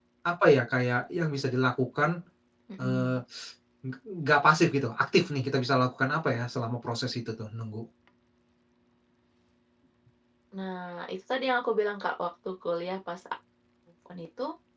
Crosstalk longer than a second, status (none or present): none